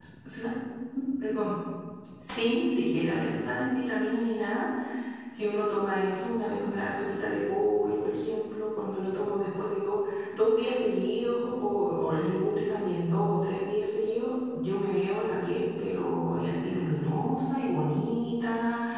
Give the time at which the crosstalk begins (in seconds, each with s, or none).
none